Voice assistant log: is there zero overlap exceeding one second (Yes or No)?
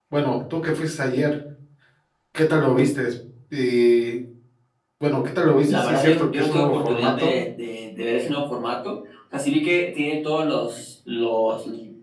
No